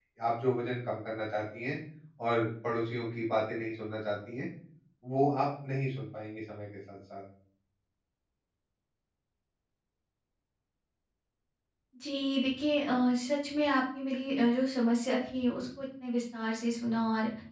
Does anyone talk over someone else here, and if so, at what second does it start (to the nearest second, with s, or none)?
none